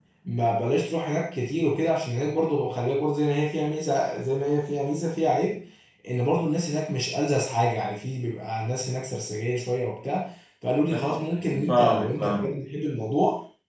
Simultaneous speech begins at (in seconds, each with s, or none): 10.9 s